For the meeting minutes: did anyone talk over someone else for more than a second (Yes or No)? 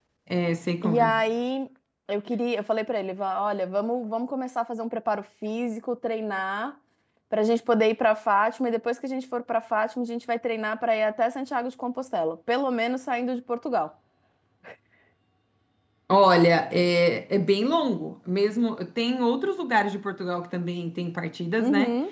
No